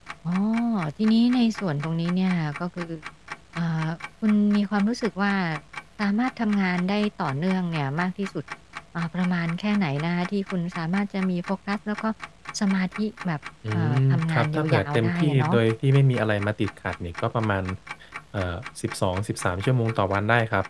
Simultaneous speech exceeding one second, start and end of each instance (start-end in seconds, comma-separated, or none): 13.7-15.6